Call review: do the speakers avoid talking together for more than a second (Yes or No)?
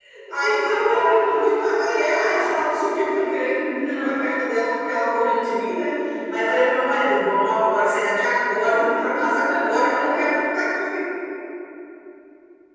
No